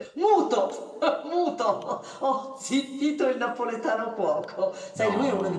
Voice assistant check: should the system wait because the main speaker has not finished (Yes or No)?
Yes